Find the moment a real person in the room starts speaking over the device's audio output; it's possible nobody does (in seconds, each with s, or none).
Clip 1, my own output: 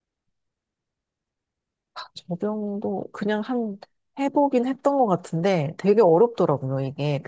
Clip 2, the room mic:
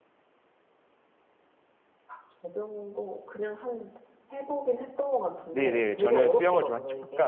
5.5 s